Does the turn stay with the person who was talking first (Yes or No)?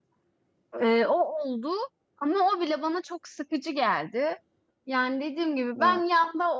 Yes